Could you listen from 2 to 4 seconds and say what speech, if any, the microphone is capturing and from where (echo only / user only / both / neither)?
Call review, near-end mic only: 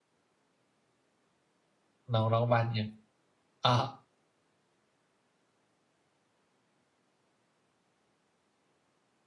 user only